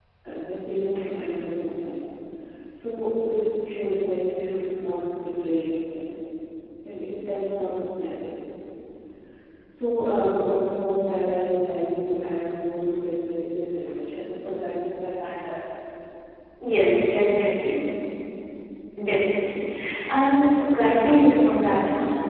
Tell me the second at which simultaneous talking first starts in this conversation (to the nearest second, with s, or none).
none